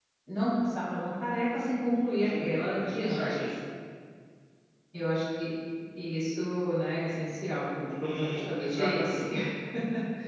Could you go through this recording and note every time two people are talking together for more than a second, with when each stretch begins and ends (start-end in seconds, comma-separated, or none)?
2.2-3.5, 7.9-9.2